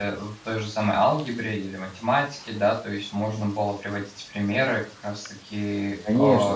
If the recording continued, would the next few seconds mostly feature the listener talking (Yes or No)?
Yes